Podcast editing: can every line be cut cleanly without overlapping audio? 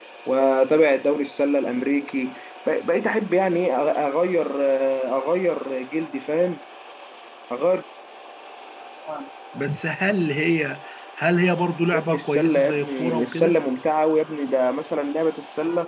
No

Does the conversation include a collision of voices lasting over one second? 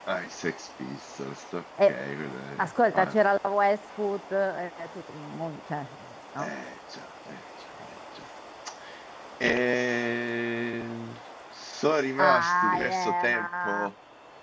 Yes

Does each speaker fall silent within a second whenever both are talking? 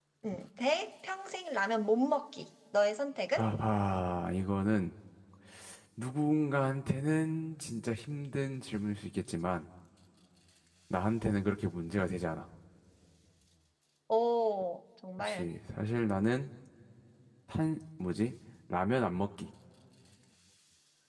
Yes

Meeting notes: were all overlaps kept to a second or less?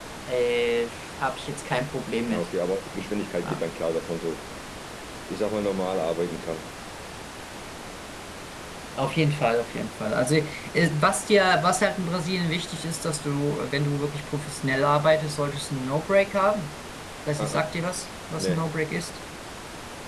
Yes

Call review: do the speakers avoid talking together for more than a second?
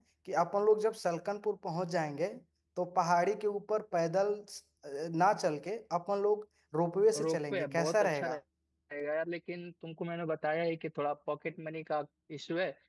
No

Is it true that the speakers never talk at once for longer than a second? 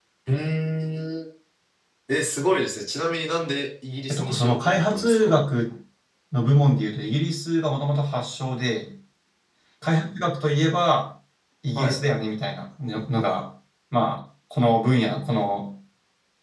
No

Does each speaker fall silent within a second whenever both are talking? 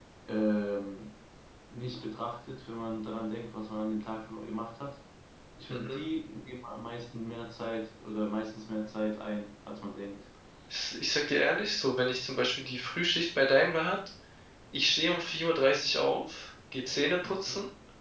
Yes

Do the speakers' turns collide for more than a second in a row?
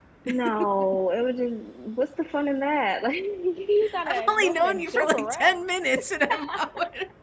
Yes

